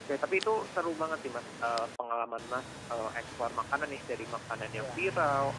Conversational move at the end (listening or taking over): listening